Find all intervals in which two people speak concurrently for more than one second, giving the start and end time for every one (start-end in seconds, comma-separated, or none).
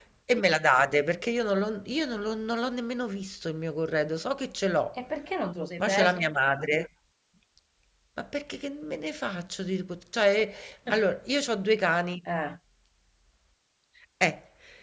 none